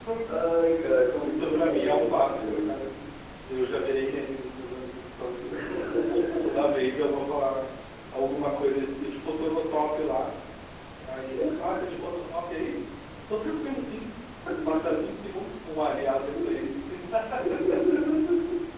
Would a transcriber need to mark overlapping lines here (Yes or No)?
Yes